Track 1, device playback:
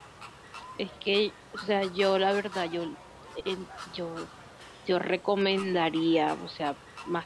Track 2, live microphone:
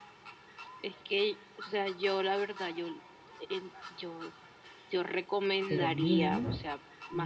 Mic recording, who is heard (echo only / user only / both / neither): both